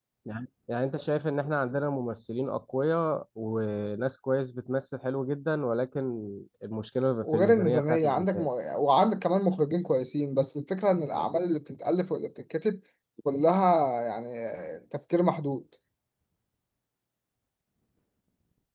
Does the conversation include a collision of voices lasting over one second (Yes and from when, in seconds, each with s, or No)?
Yes, from 7.2 s